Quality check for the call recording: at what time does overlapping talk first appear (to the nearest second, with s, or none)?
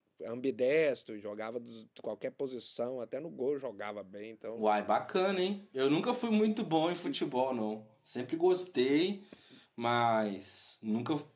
none